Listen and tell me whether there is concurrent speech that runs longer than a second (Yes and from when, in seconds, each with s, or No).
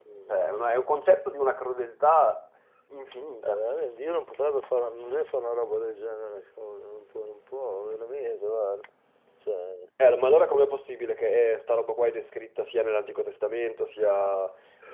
No